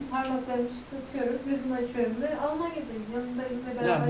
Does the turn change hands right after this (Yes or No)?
Yes